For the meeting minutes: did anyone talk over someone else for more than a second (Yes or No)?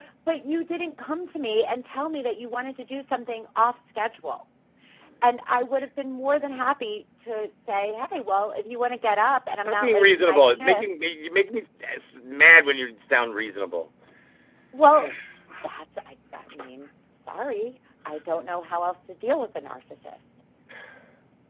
Yes